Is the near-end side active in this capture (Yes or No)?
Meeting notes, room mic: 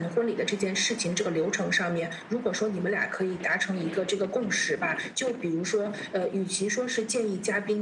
No